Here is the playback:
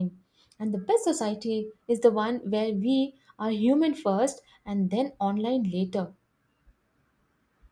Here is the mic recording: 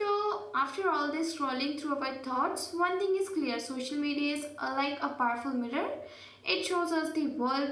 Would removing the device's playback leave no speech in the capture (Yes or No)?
No